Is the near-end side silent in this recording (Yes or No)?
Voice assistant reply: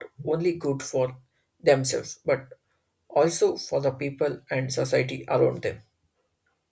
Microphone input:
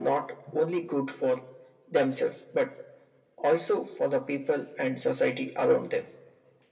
Yes